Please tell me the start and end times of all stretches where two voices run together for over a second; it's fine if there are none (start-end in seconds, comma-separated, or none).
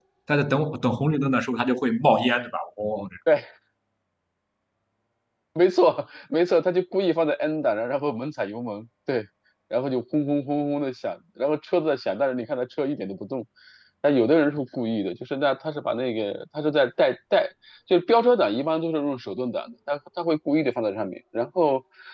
none